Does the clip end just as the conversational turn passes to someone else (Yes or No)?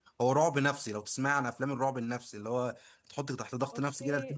Yes